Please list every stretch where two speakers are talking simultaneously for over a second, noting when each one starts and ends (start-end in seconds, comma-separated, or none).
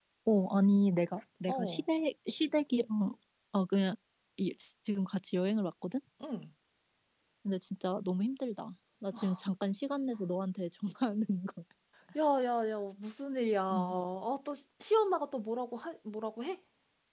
none